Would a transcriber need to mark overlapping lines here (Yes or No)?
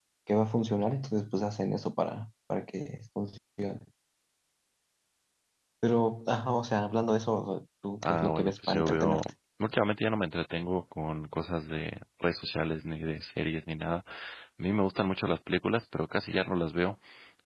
Yes